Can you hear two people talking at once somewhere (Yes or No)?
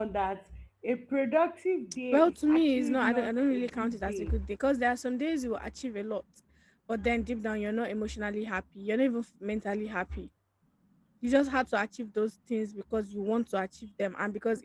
Yes